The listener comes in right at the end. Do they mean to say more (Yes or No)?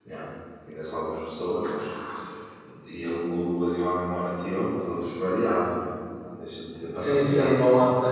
Yes